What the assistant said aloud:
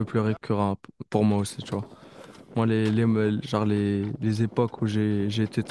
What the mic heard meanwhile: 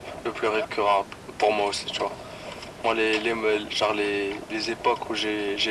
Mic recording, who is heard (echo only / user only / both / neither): echo only